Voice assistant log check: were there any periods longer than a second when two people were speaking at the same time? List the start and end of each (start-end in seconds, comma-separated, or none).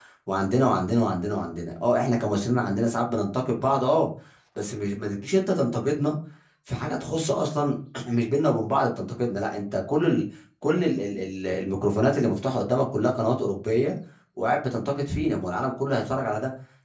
none